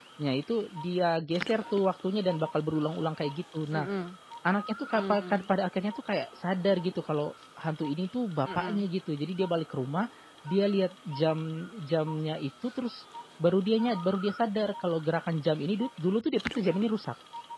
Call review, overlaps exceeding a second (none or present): none